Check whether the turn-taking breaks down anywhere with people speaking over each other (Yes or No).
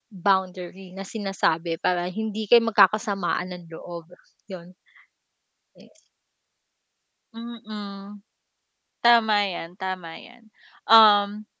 No